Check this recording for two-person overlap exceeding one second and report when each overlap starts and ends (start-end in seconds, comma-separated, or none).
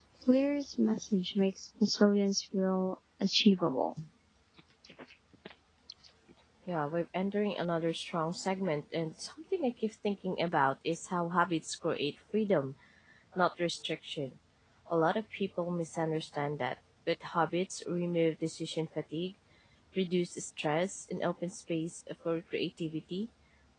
none